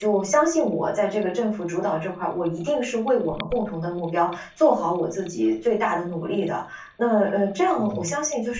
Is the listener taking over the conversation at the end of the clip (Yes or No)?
No